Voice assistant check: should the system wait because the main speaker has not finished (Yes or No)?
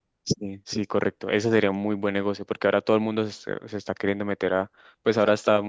Yes